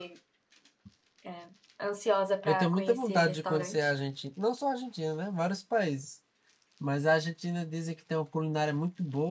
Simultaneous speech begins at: 2.4 s

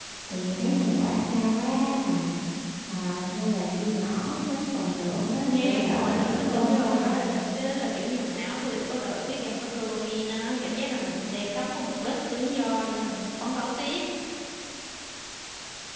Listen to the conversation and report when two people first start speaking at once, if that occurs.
5.4 s

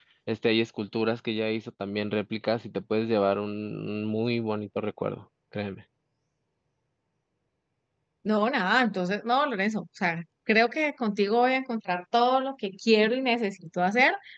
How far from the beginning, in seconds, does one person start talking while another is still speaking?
none

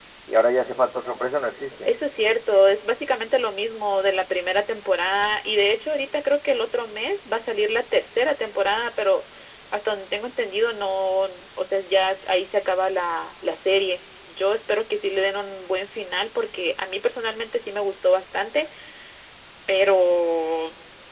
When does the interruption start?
none

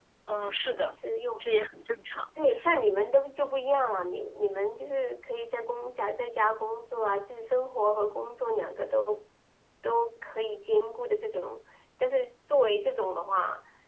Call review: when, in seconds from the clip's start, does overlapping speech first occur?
none

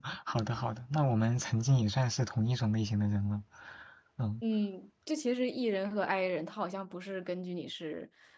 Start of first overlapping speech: none

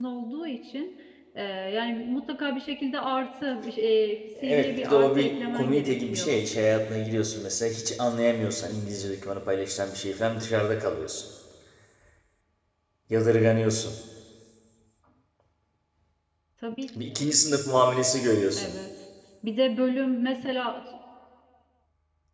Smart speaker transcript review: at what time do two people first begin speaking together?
4.4 s

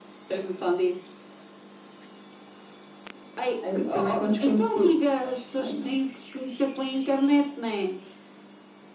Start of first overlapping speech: 3.8 s

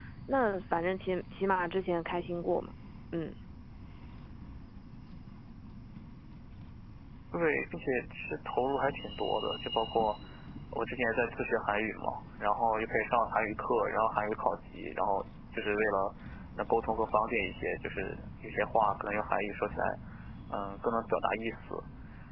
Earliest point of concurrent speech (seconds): none

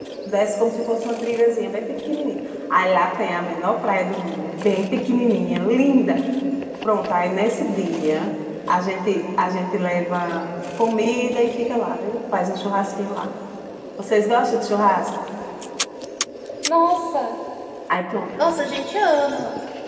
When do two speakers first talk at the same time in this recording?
none

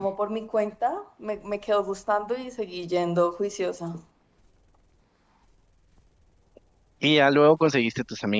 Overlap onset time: none

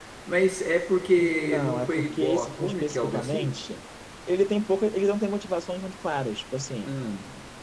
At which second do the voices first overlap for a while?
1.2 s

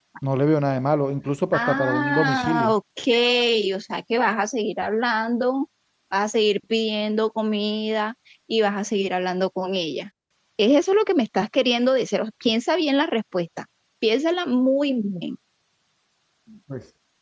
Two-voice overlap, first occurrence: 1.5 s

